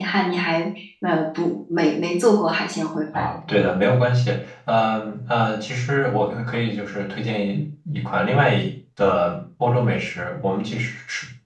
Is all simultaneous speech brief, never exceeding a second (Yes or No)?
Yes